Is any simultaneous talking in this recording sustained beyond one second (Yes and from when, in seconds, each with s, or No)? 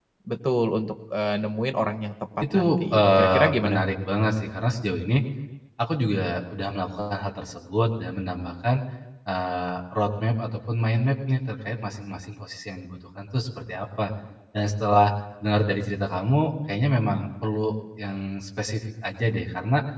Yes, from 2.4 s